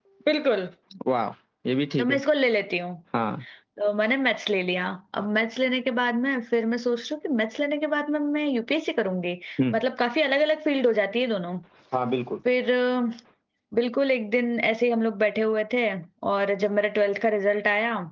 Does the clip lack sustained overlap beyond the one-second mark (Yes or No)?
Yes